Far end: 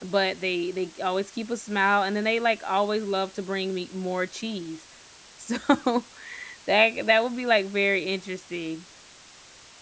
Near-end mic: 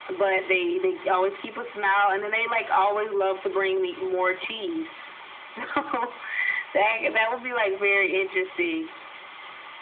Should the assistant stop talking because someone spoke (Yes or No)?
No